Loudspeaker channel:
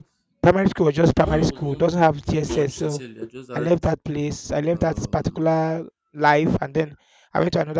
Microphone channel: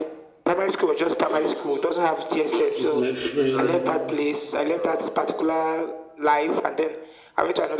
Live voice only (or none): with my friends.